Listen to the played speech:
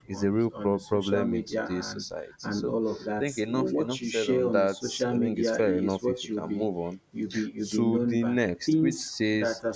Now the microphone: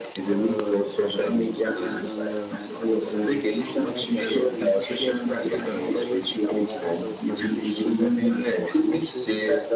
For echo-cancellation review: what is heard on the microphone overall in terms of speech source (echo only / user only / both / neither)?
both